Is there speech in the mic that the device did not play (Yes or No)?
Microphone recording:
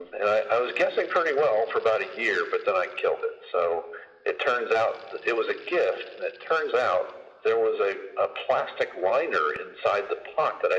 No